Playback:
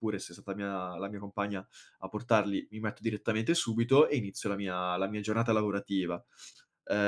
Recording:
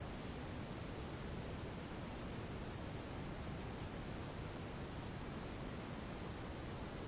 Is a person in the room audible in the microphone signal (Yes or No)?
No